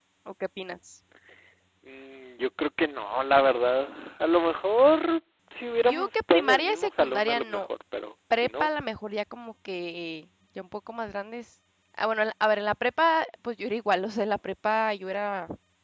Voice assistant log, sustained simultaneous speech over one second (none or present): present